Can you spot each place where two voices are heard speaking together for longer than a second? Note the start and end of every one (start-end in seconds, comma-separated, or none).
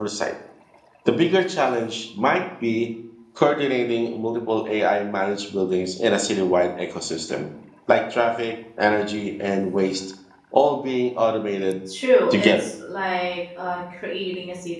none